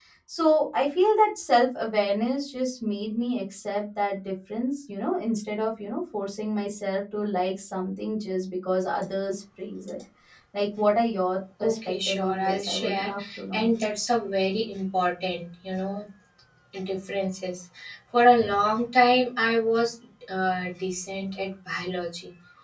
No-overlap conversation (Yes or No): No